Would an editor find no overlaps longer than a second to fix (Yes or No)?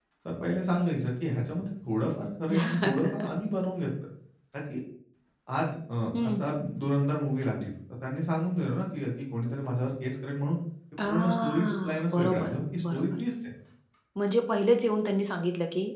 No